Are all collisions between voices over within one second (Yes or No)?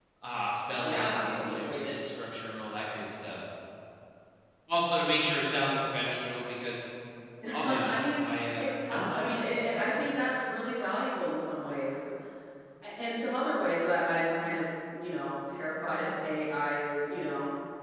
No